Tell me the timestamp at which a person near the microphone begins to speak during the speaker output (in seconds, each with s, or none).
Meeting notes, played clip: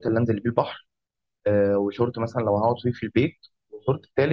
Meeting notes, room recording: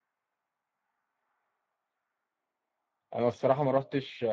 3.1 s